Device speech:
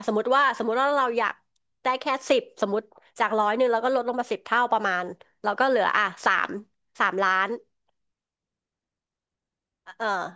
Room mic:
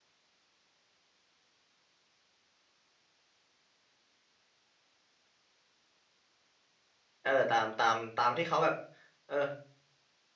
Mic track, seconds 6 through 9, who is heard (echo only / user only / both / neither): user only